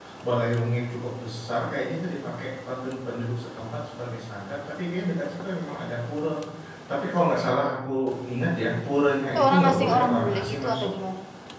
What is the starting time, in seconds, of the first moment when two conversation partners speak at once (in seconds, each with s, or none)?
9.3 s